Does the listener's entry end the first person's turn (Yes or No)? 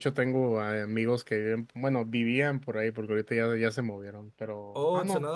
Yes